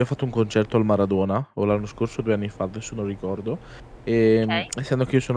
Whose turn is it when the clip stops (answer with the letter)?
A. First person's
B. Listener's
A